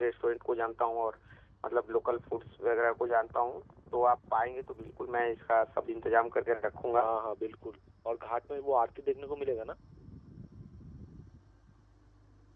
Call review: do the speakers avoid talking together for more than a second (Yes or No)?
Yes